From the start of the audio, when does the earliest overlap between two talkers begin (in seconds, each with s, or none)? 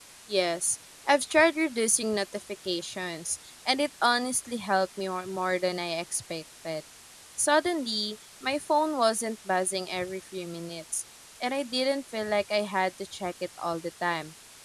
none